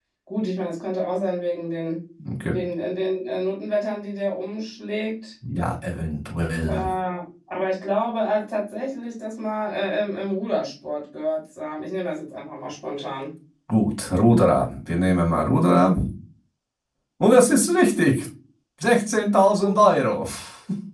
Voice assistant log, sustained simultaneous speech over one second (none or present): none